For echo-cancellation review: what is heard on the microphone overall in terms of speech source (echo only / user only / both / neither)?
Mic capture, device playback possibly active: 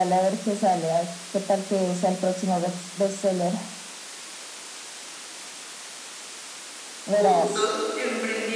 both